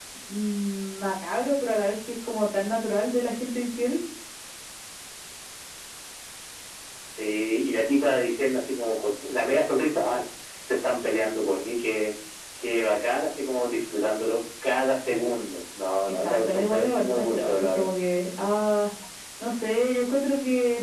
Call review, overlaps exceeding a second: present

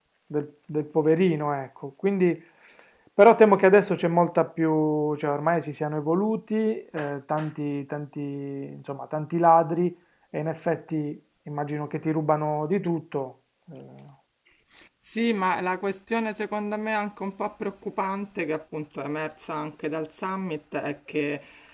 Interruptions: none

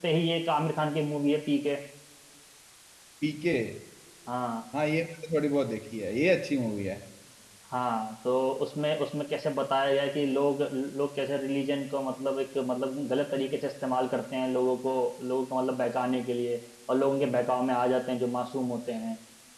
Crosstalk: none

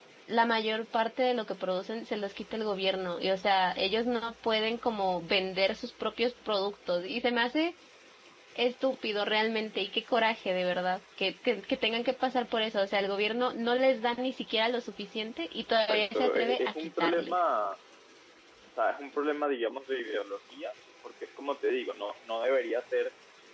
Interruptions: present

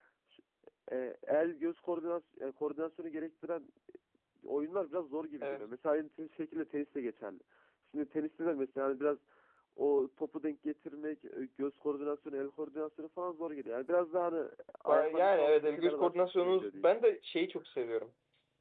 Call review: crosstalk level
present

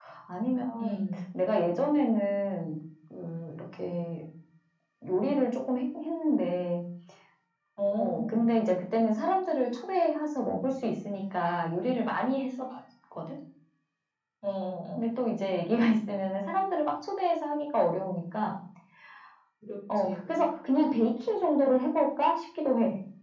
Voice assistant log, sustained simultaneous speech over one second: none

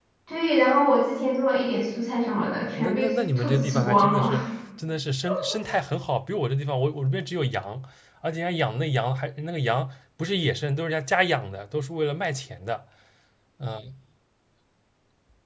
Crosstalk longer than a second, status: present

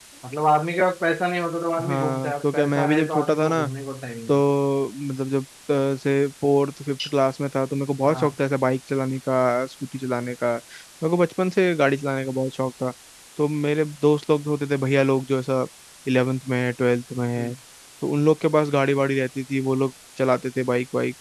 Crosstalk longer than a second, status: present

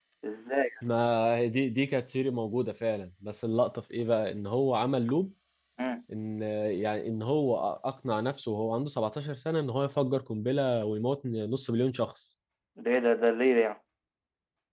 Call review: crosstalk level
none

